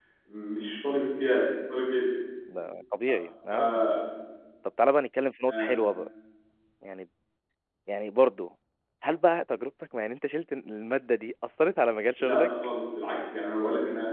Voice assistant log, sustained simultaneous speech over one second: none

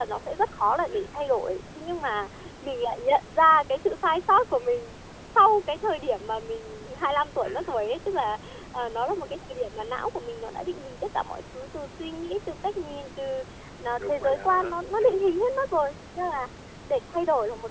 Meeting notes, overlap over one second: present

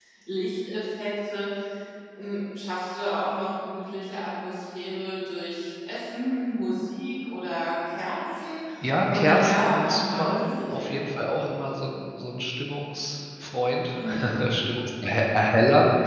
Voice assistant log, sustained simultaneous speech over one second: present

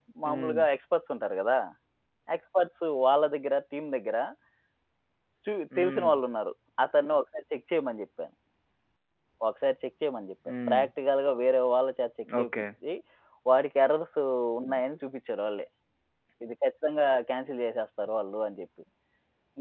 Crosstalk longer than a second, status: none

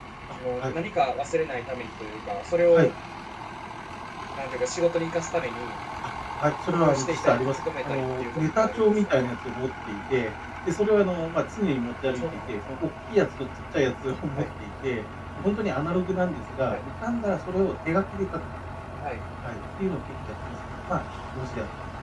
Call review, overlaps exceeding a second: present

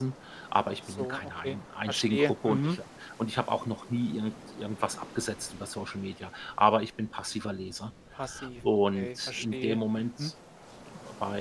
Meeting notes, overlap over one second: present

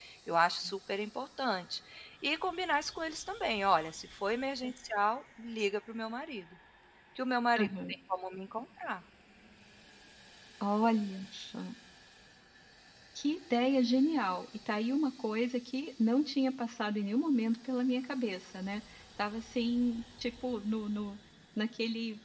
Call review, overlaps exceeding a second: none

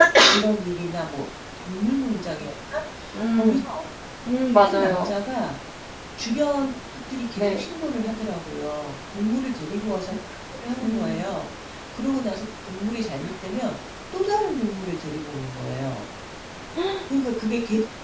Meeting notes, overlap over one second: none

